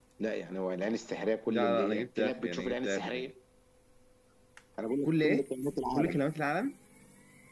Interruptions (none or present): present